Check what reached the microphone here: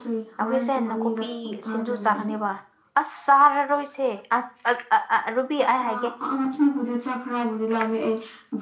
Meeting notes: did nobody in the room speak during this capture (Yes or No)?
No